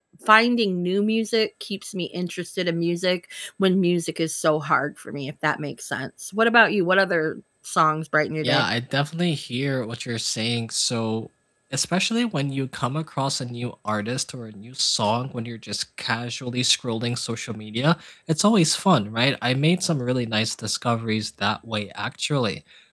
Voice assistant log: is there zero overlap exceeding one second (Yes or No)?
Yes